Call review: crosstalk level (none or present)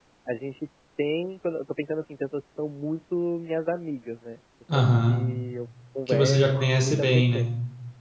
present